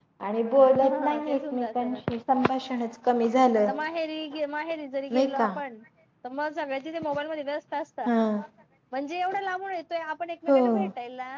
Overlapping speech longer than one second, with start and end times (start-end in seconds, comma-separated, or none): 0.8-2.0